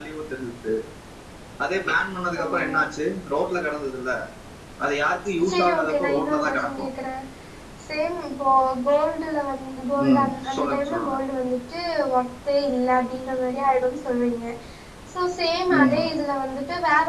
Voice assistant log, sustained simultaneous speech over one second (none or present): present